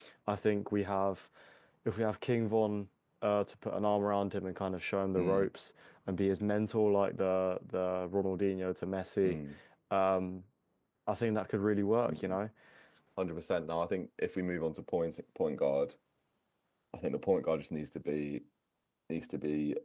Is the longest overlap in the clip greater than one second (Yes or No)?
No